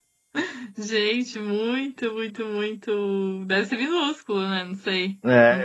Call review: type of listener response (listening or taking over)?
taking over